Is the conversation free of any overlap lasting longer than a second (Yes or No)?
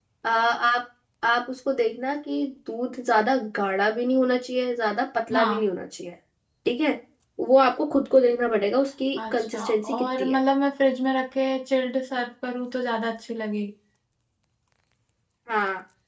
No